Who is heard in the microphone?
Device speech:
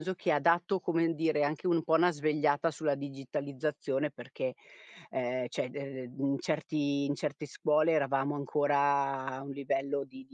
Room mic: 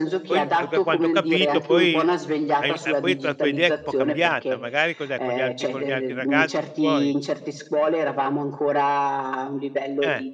both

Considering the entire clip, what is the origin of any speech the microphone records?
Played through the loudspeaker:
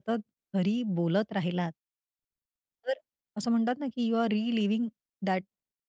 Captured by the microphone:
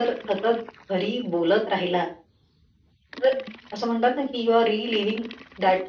echo only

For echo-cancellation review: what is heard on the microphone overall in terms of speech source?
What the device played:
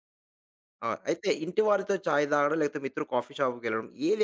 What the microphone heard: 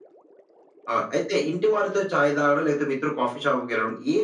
echo only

